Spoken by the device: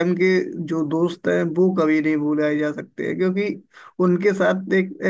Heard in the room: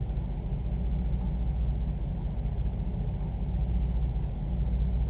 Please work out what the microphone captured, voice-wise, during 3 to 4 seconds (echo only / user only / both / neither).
neither